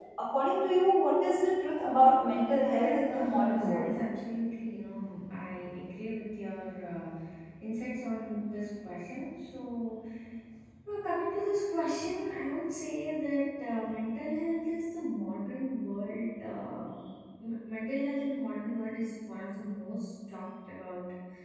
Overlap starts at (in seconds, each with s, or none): 1.8 s